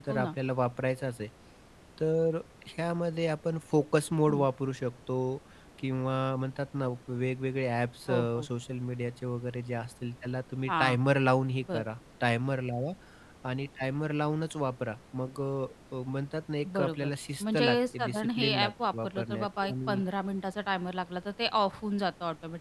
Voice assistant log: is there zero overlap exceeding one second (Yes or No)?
No